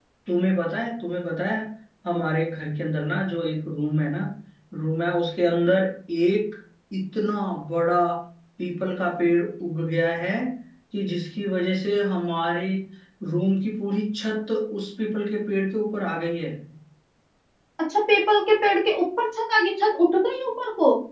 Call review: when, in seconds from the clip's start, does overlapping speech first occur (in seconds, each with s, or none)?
none